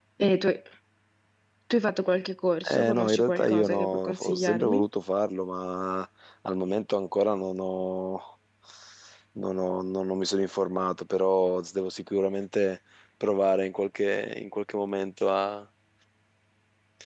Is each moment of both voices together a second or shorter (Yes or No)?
No